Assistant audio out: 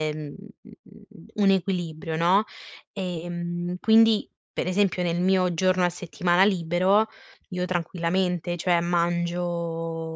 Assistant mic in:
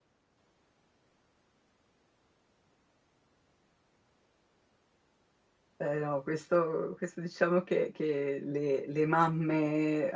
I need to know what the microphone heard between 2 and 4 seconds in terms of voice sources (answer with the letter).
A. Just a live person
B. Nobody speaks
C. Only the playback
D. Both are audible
B